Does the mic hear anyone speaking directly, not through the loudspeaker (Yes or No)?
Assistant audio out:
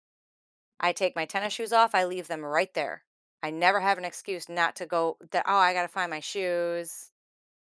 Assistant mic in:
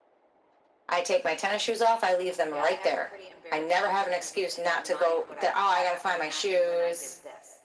Yes